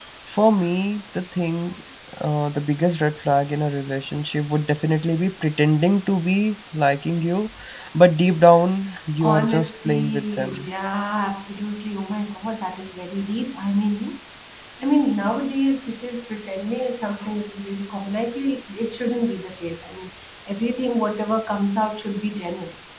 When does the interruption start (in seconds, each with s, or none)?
9.2 s